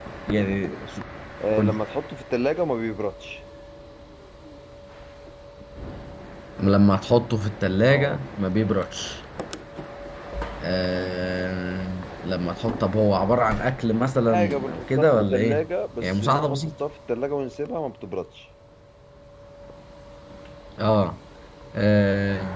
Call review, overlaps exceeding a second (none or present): present